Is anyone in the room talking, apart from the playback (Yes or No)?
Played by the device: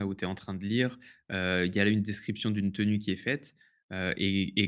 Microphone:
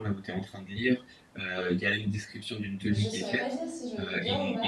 Yes